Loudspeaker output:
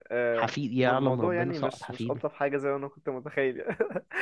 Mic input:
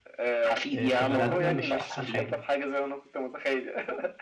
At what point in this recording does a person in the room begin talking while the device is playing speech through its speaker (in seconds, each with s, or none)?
0.7 s